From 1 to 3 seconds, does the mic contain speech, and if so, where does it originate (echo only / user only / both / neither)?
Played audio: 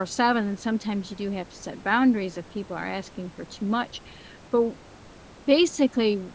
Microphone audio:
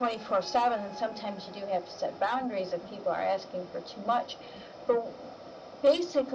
echo only